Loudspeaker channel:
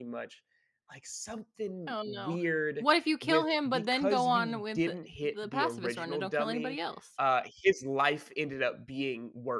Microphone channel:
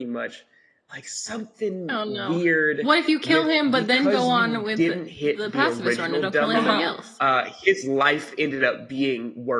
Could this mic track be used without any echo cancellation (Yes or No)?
No